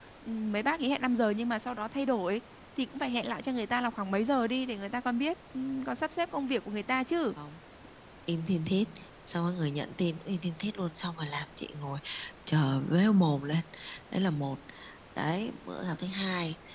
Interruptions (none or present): none